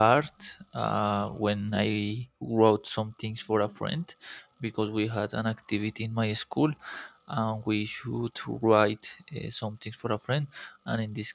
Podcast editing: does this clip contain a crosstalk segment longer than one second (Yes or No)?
No